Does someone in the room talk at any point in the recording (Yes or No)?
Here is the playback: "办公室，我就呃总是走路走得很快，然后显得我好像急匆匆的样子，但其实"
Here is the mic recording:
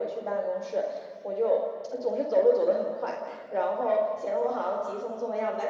No